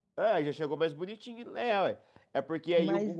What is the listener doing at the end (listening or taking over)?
listening